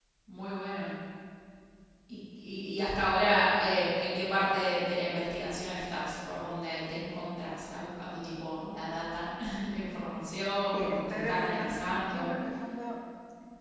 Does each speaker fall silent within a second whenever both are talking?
No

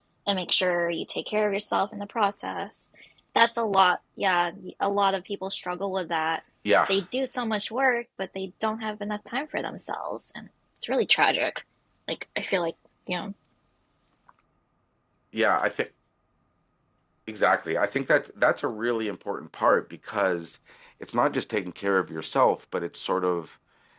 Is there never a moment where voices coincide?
Yes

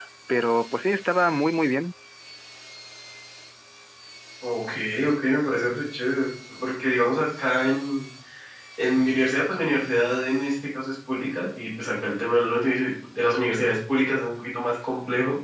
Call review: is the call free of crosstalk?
Yes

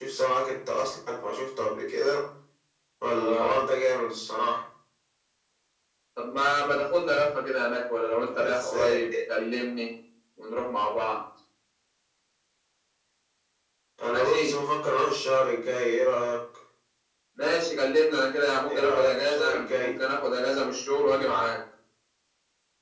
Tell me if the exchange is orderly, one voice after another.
No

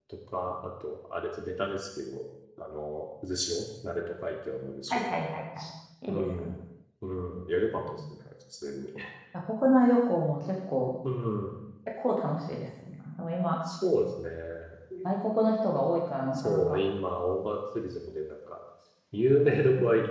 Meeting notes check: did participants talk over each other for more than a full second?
No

